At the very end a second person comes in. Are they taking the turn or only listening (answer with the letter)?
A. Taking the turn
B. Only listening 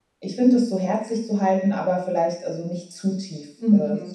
A